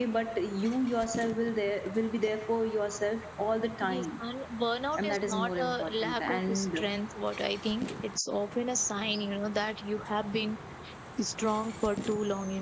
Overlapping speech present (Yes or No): Yes